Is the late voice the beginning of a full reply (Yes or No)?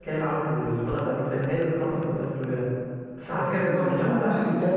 Yes